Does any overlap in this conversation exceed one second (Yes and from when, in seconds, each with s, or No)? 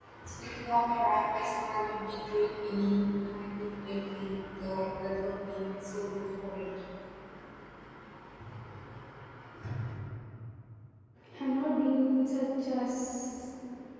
No